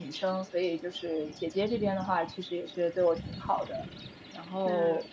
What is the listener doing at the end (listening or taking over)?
listening